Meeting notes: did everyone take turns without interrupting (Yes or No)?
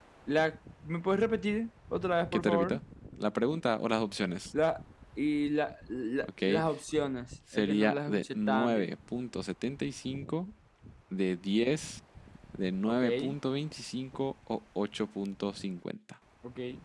No